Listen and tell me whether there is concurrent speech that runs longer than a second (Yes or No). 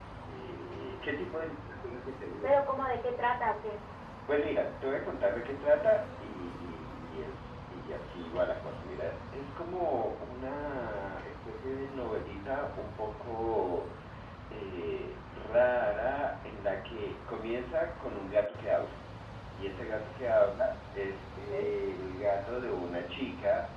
No